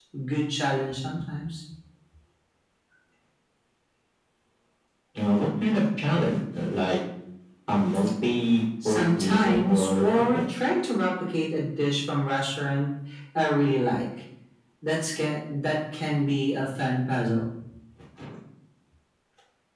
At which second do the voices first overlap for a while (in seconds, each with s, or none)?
8.8 s